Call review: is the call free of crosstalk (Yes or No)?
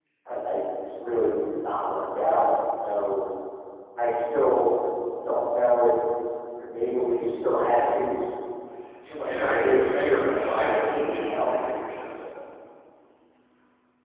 No